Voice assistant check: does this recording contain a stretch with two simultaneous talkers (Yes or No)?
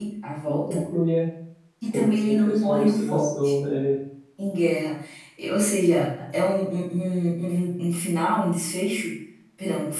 Yes